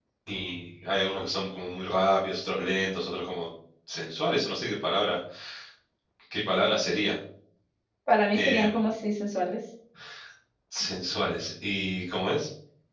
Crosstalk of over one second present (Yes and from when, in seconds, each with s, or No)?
No